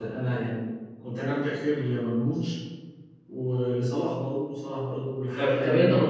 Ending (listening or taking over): taking over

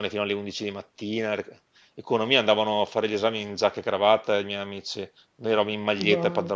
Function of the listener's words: taking over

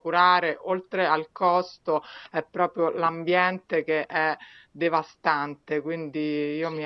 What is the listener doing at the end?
taking over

